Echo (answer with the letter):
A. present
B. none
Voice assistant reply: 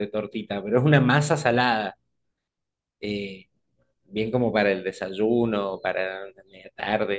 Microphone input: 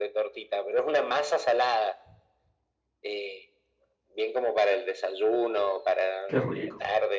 A